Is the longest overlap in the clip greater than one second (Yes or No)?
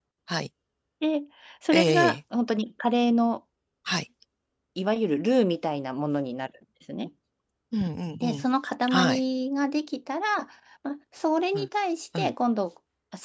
No